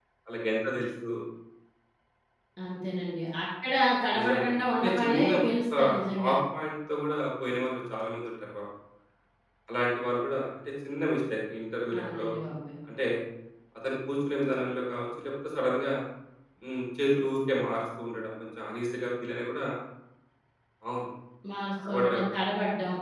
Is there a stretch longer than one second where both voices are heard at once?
Yes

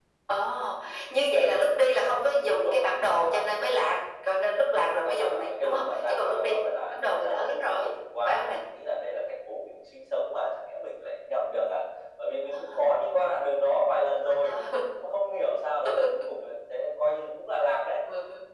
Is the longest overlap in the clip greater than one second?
Yes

